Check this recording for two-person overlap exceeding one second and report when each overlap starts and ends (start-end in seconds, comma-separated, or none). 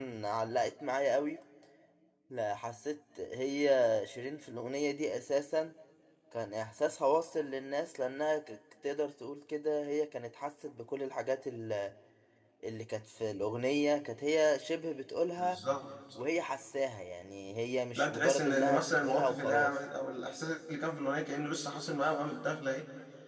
18.0-19.8